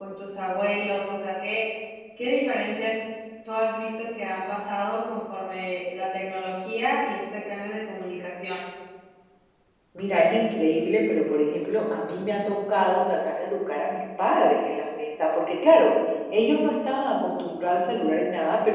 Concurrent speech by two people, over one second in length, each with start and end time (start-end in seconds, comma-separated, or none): none